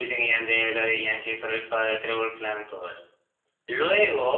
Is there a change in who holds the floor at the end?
No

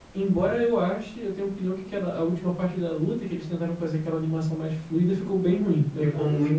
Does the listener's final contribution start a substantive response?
Yes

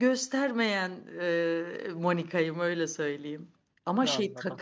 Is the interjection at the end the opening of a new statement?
No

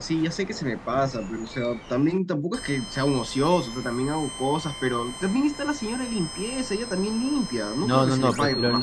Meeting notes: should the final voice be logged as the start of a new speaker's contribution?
Yes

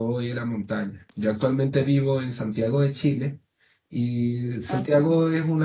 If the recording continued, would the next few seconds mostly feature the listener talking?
No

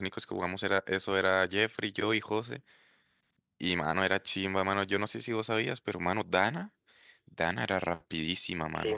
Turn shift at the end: Yes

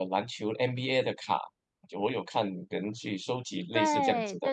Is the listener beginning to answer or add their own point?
Yes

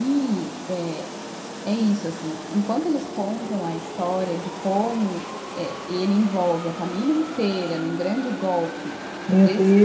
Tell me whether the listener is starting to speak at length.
Yes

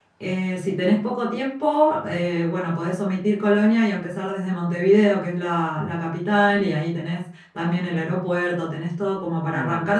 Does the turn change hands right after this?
No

